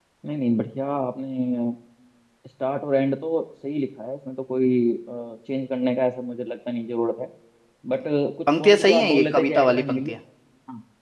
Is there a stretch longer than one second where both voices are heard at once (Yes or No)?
Yes